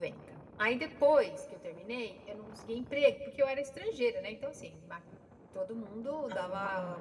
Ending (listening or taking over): listening